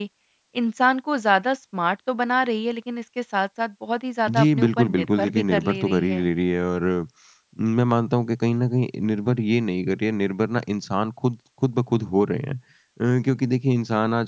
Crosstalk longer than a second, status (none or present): present